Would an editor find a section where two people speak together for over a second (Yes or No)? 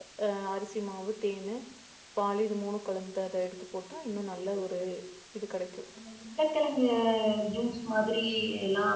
No